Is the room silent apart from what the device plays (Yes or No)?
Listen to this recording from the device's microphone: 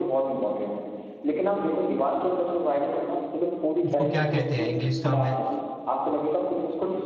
No